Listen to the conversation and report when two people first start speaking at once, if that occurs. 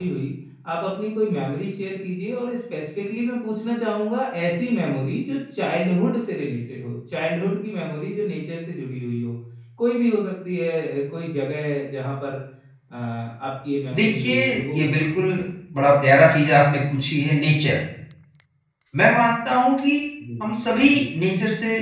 13.9 s

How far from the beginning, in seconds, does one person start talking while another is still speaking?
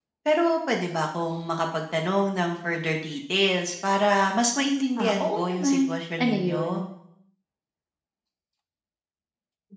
5.0 s

